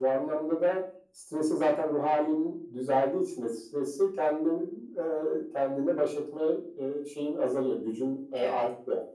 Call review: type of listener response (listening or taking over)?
taking over